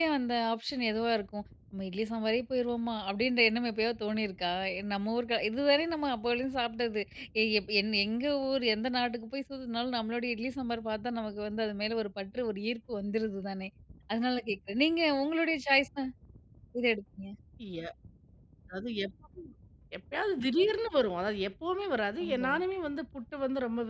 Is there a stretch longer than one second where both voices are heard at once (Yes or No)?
No